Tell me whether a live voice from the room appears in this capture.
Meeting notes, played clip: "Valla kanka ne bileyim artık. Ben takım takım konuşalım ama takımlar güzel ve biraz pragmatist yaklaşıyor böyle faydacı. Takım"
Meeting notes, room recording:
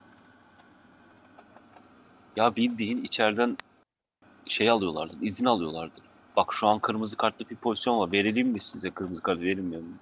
Yes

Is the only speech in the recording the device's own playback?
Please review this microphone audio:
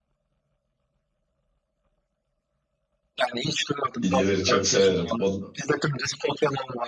No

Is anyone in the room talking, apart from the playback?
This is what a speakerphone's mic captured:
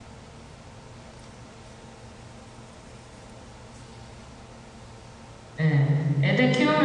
Yes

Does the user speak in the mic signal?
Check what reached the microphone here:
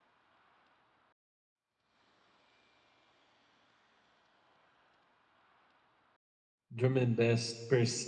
Yes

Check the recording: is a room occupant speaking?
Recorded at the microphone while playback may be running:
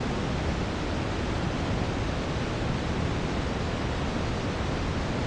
No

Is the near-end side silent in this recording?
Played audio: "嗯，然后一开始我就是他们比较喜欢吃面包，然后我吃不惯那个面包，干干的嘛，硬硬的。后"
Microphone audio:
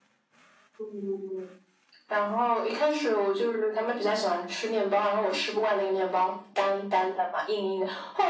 Yes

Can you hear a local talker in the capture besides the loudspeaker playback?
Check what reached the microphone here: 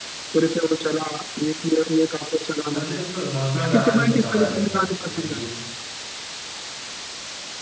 Yes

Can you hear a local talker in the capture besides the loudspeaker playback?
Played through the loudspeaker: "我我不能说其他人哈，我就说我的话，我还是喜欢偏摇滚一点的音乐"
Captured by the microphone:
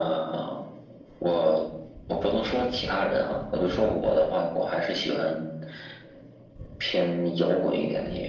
No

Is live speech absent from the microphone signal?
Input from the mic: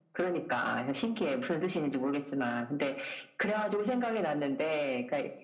Yes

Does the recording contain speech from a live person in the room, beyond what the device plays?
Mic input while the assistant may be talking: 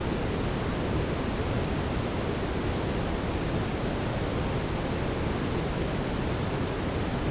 No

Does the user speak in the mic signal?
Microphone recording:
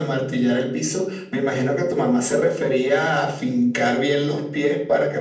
No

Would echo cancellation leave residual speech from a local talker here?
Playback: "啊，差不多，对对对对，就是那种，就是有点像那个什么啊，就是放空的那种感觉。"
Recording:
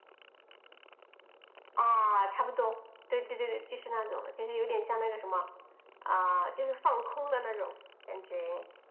No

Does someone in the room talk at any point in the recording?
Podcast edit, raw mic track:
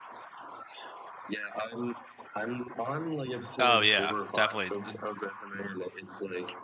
Yes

